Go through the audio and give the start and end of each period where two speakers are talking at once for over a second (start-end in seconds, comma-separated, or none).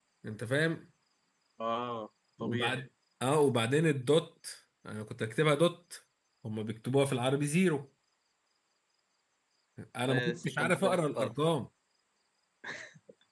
10.1-11.3